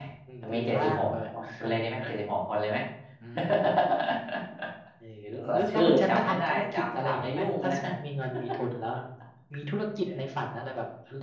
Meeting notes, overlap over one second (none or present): present